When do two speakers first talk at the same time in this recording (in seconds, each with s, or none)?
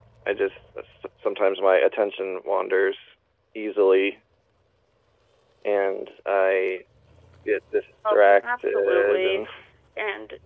8.1 s